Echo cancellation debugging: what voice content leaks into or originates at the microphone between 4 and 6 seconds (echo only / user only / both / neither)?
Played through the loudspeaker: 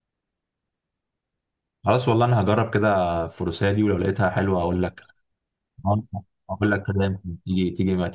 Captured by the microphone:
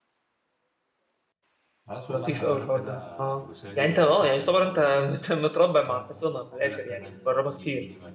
both